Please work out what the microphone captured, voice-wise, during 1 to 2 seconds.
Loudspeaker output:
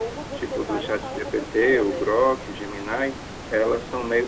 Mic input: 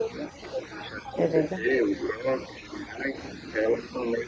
both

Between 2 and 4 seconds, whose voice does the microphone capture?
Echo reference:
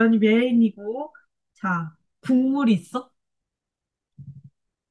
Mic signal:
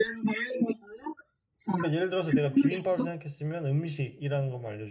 both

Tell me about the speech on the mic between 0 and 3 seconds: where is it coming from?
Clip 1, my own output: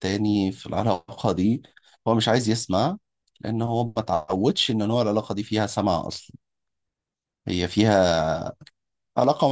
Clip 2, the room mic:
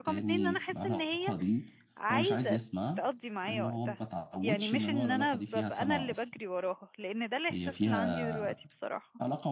both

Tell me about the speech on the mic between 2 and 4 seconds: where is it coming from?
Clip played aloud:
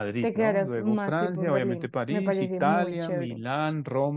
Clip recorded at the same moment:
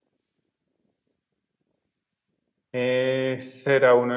user only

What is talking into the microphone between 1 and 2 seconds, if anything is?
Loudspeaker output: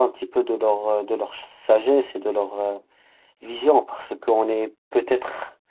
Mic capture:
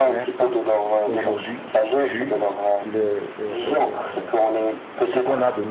both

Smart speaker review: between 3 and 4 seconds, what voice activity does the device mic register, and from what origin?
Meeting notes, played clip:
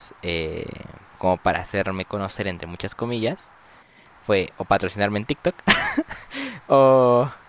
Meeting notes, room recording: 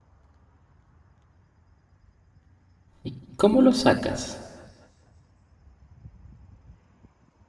user only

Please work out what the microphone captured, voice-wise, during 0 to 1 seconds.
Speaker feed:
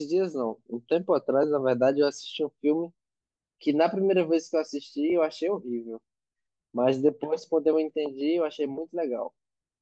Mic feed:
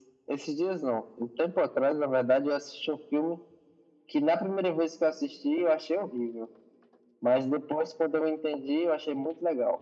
echo only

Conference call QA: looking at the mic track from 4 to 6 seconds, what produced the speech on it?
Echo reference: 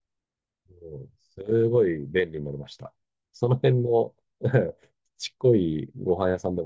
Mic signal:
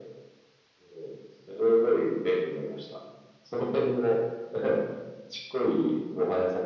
echo only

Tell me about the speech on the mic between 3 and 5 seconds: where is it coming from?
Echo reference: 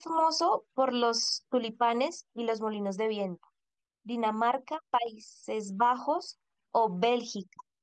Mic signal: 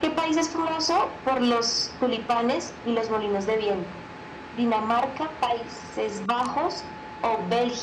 echo only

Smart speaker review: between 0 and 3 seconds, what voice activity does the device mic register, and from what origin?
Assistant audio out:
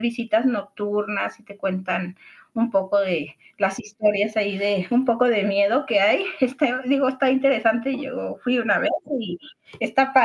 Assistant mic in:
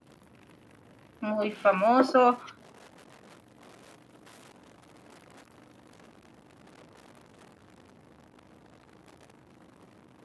user only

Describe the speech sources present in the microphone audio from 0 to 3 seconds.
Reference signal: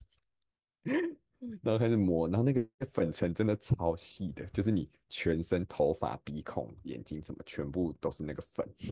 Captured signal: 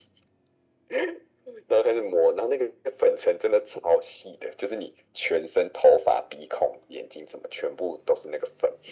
echo only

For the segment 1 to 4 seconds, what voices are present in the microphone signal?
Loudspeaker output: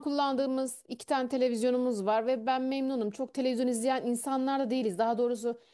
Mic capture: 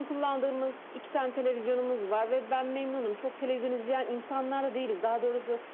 echo only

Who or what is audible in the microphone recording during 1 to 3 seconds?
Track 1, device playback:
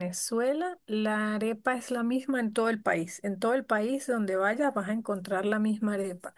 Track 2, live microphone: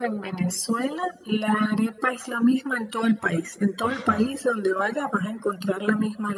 echo only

